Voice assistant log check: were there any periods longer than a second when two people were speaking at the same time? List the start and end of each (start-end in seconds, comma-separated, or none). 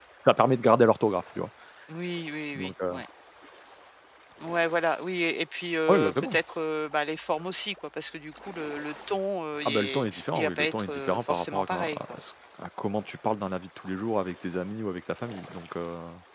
9.7-12.0